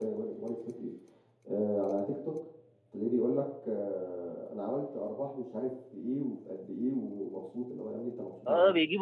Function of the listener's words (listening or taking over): taking over